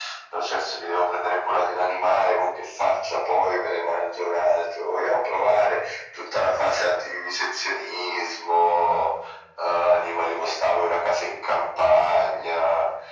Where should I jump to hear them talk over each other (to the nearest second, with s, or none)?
none